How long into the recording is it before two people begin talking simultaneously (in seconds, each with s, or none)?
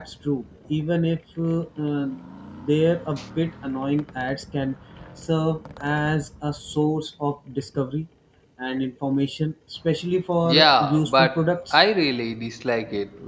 10.4 s